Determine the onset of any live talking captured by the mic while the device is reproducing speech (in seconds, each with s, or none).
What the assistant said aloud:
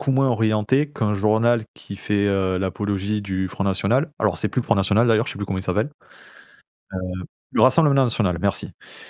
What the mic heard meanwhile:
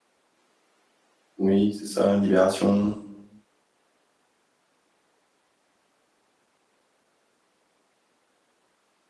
1.4 s